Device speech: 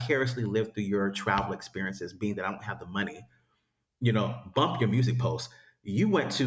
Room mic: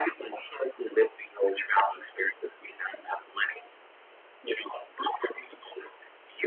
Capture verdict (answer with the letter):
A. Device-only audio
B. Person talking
A